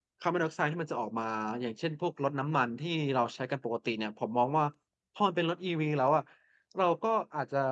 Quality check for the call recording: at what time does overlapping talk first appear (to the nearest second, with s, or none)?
none